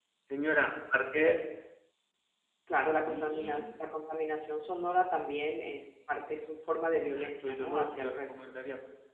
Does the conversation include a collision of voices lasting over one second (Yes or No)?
Yes